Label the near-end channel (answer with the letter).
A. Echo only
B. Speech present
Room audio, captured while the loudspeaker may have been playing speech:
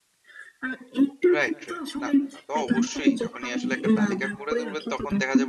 B